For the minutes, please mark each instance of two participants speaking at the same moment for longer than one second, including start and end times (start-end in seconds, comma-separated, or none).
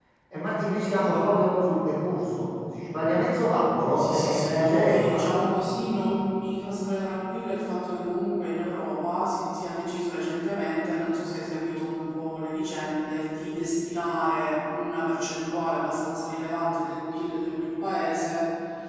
4.0-5.2